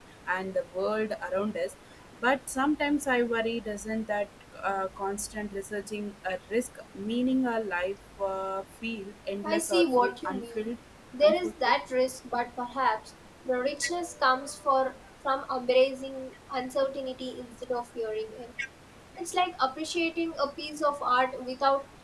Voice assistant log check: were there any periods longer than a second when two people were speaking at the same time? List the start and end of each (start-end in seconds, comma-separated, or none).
9.4-10.7